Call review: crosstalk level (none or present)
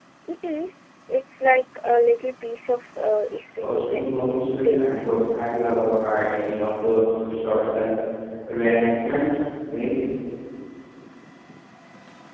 present